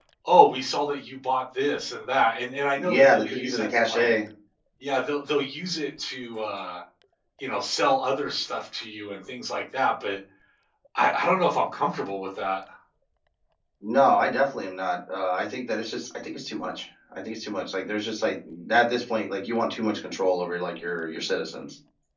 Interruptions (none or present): present